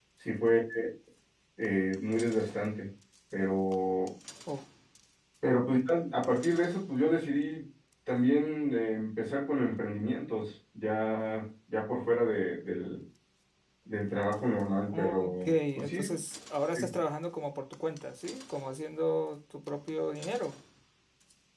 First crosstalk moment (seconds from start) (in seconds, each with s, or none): 14.9 s